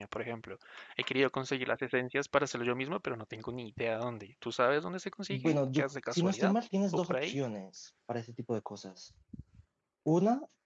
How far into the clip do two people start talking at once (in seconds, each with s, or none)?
5.3 s